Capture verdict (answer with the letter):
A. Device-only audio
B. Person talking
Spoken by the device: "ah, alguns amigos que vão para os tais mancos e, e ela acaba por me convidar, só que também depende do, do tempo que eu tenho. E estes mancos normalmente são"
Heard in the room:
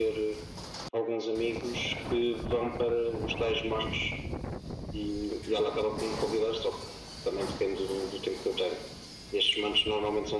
A